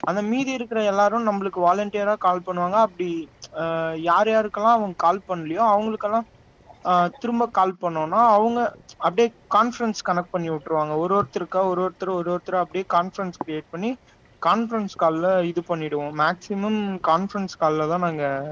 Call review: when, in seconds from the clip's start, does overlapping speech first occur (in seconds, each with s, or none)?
none